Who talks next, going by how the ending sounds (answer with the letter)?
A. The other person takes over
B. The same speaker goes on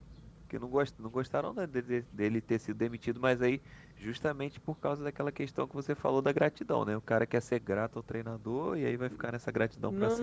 A